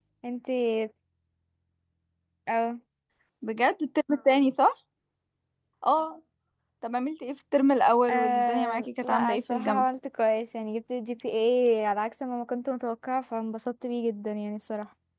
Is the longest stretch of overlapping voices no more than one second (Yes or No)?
No